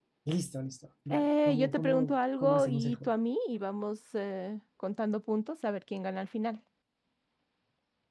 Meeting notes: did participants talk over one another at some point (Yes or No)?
Yes